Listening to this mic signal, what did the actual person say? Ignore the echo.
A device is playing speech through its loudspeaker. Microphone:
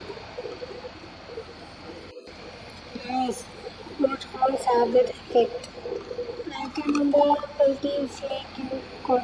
none

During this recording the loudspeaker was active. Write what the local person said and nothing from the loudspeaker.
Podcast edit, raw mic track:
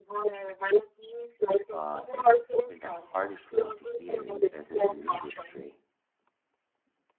but it's often the hardest one to hear in business and industry.

